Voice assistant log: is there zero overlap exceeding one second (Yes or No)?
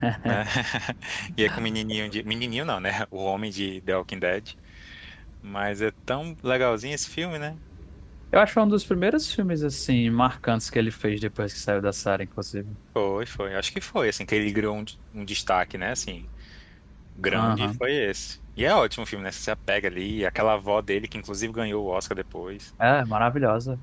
Yes